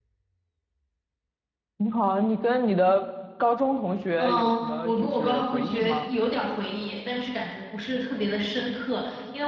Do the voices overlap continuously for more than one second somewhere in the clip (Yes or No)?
Yes